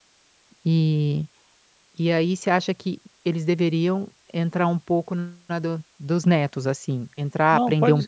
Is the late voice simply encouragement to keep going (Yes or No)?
No